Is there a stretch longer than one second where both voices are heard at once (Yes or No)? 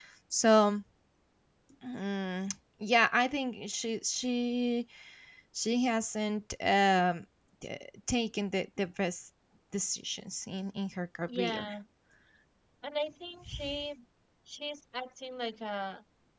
No